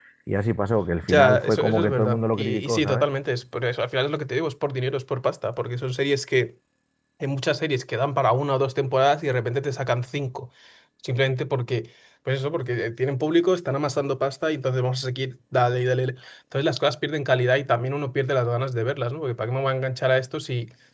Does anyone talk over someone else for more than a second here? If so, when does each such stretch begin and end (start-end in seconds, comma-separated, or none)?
1.0-3.1